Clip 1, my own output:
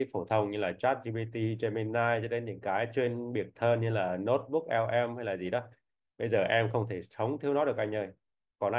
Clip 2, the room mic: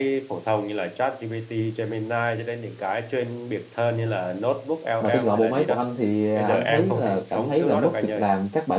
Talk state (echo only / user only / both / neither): both